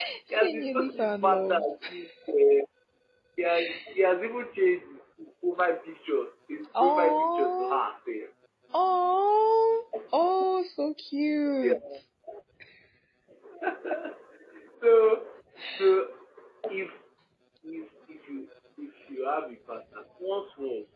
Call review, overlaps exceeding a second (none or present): present